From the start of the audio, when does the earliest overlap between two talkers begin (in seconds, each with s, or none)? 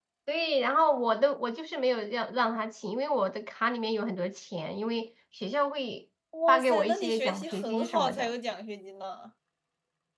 6.3 s